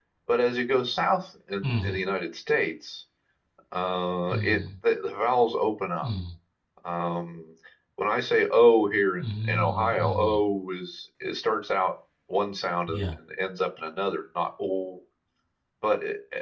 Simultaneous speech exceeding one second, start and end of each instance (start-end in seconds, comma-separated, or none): 9.2-10.4